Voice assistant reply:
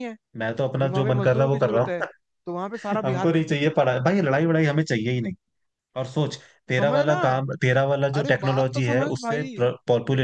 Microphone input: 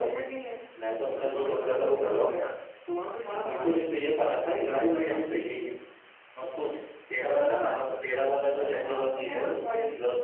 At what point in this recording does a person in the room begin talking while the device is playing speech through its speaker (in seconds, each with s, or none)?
none